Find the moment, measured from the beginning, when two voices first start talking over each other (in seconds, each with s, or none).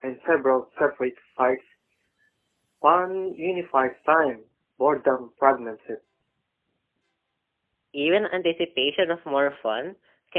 none